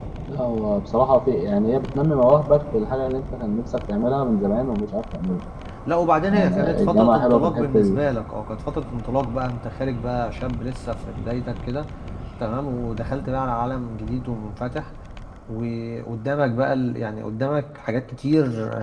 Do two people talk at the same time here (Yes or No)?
Yes